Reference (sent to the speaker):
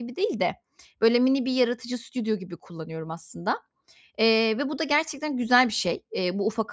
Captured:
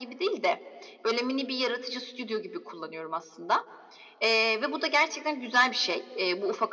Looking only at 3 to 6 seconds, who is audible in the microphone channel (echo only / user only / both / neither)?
echo only